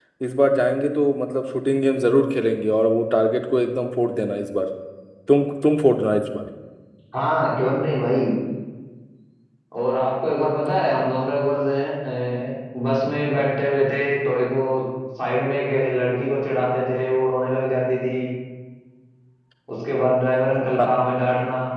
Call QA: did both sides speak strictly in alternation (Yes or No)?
Yes